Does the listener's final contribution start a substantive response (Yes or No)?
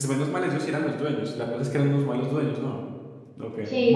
Yes